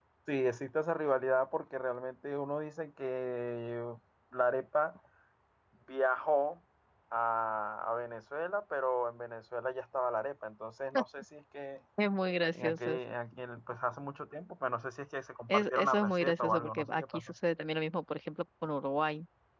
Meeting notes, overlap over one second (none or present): present